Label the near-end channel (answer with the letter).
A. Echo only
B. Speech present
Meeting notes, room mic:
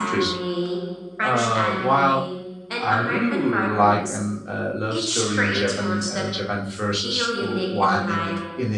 B